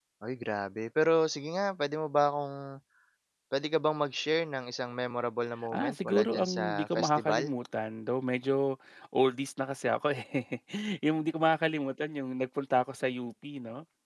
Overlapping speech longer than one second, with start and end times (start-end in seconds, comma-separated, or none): 5.7-7.4